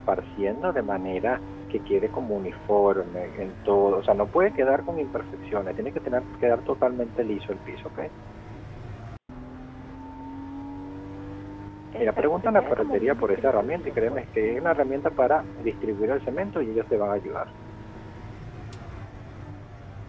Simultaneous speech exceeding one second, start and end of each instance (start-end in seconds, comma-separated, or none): 12.0-14.2